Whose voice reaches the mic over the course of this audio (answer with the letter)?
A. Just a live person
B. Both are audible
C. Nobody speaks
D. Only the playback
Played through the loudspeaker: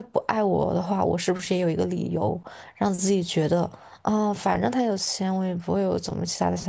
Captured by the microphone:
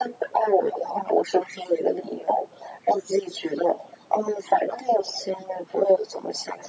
D